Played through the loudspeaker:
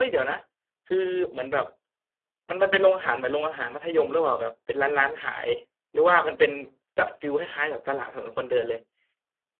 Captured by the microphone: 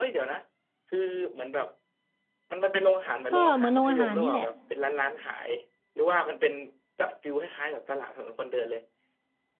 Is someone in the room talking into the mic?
Yes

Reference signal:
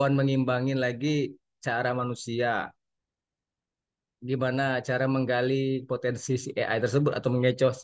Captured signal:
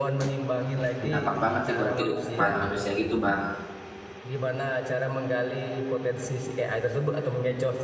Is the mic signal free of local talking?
No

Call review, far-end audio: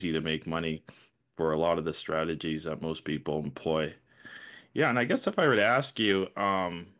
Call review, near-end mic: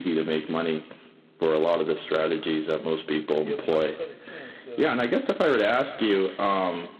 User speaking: Yes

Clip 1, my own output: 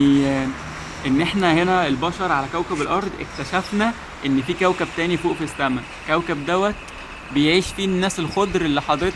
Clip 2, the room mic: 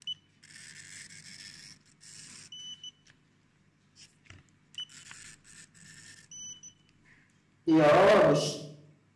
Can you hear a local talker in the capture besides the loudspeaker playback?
Yes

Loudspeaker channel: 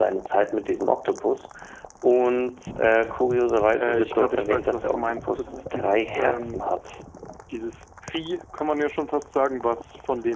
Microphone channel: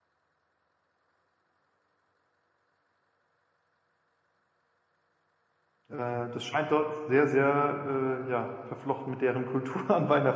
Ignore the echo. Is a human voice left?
Yes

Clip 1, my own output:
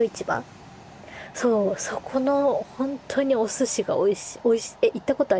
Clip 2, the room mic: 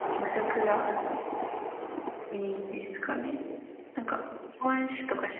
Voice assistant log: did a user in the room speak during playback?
Yes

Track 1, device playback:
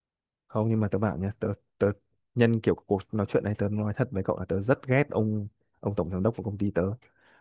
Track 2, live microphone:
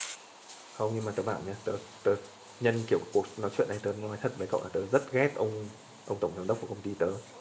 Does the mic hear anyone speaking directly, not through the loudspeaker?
No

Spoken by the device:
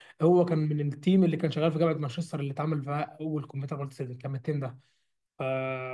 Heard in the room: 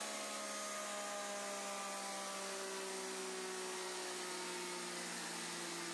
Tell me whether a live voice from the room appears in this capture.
No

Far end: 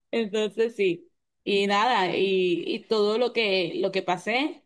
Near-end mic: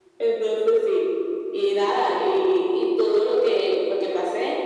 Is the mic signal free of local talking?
Yes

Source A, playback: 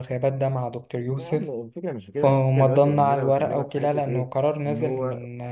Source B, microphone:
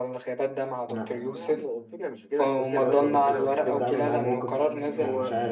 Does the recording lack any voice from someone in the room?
No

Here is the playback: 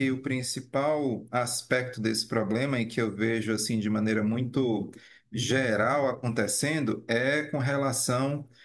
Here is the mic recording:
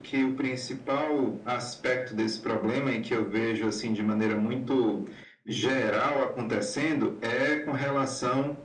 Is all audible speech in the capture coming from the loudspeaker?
Yes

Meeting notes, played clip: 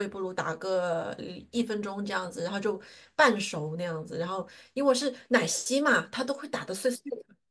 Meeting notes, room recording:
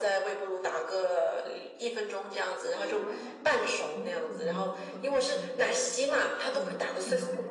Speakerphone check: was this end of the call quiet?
No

